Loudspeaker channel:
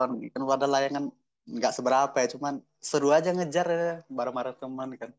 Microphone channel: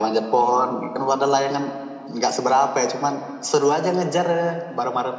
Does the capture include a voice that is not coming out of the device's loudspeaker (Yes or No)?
No